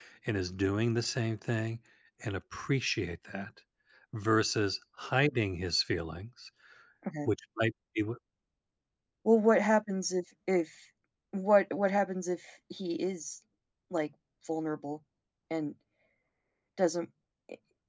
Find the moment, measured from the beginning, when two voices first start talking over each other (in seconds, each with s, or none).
none